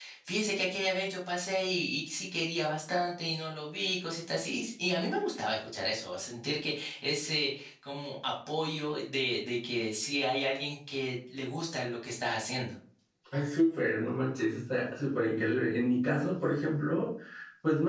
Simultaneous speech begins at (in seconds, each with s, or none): none